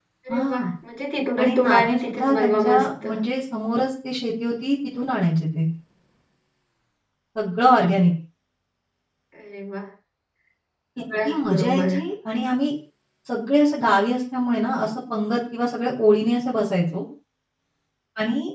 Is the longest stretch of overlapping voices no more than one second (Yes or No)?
No